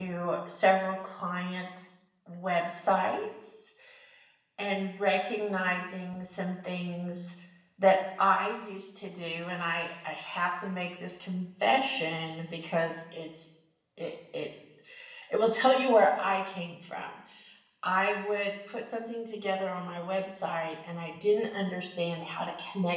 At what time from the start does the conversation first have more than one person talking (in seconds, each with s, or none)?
none